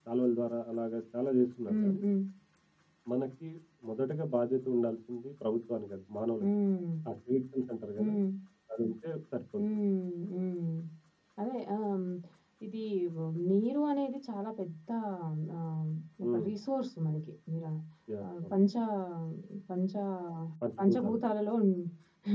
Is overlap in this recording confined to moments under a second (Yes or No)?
Yes